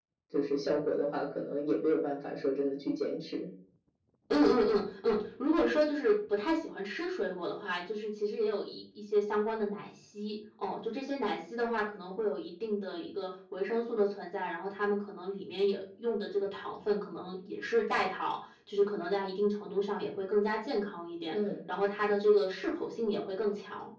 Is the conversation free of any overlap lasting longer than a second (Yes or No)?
Yes